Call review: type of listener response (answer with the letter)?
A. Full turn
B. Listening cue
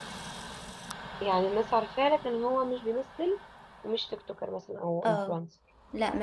A